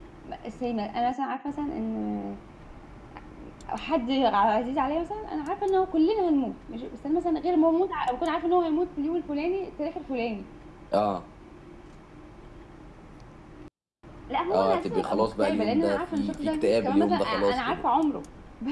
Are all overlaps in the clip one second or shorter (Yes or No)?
No